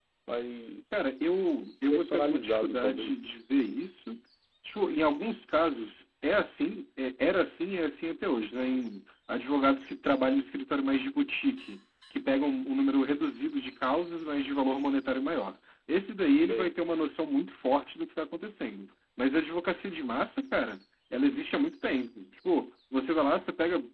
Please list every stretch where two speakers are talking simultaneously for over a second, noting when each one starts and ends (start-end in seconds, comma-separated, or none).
1.9-3.2